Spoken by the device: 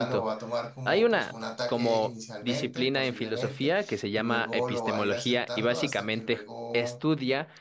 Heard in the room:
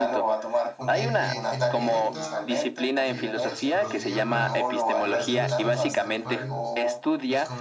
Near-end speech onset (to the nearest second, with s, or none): 1 s